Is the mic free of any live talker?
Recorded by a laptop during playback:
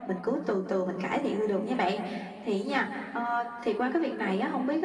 Yes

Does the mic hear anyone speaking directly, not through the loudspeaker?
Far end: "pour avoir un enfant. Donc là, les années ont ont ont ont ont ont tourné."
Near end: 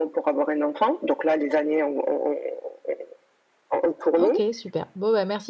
Yes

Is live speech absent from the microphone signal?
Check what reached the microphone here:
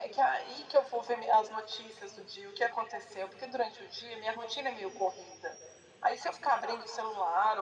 Yes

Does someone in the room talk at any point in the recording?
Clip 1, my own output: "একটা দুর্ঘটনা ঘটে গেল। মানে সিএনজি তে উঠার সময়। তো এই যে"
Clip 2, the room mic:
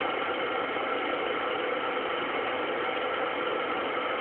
No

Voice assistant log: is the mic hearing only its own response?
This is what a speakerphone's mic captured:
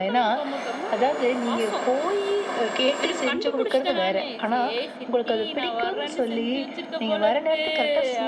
Yes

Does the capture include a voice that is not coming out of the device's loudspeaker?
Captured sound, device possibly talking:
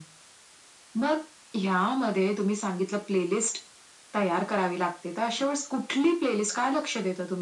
No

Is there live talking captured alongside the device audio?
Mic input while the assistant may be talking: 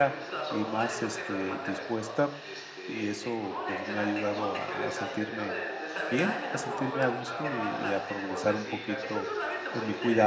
Yes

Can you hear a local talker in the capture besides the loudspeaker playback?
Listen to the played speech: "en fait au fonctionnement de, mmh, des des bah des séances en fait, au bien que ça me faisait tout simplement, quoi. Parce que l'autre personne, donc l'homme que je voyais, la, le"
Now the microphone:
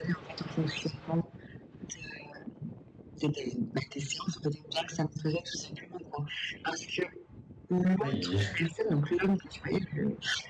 Yes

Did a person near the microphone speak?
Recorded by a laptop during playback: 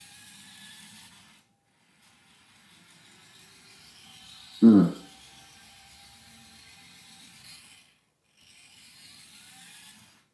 Yes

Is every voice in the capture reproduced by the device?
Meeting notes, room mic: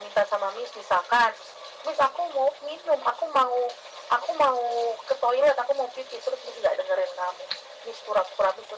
Yes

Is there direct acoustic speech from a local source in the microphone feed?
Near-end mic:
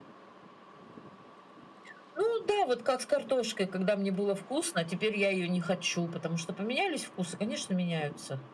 No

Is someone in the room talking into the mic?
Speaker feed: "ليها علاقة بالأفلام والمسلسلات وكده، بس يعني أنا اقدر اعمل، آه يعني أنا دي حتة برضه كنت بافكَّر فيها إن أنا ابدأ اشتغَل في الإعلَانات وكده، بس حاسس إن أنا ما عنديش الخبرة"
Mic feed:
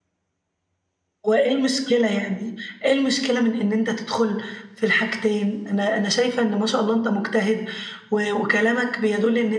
Yes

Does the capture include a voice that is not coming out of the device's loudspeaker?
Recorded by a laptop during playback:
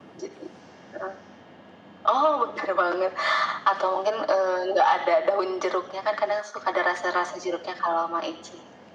No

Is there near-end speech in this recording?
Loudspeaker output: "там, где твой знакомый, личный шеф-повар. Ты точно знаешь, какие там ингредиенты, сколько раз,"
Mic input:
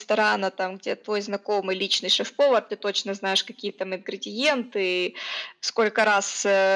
No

